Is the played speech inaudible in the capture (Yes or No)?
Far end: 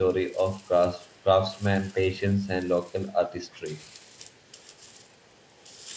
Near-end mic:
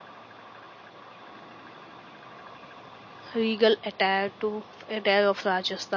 Yes